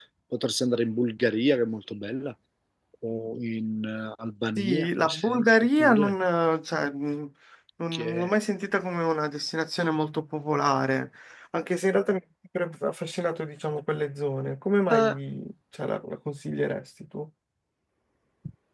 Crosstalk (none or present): present